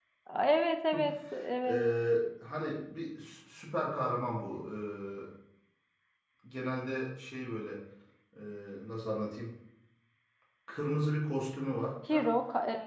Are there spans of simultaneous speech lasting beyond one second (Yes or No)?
No